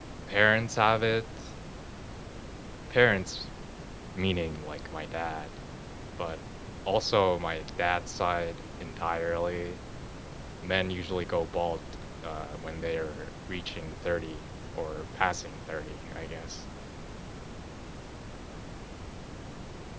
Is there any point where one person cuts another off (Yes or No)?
No